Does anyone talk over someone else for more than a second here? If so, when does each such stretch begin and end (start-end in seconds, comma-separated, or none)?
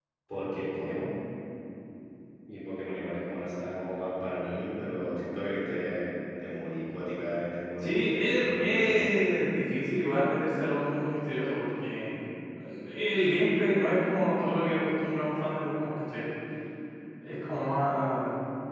7.8-9.1